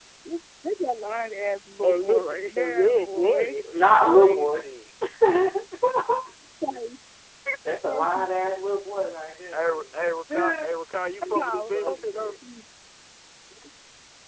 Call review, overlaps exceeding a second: present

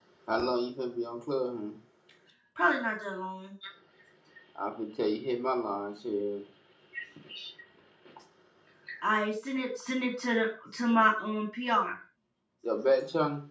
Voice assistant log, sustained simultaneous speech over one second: none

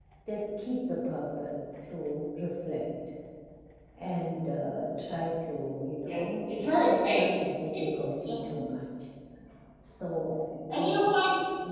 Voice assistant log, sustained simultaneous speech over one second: none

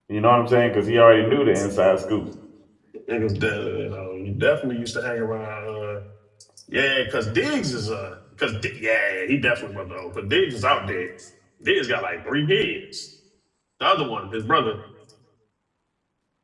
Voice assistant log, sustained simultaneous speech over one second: none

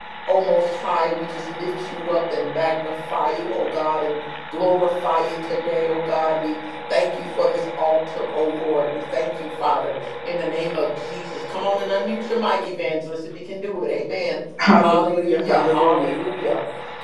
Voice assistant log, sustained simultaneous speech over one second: present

